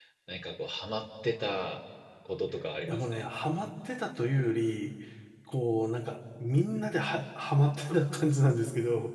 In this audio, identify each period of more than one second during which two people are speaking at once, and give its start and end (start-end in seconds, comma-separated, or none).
none